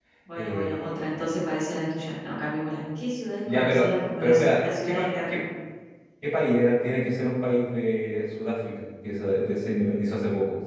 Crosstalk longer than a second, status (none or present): present